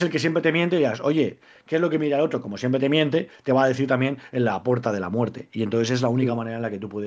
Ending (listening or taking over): listening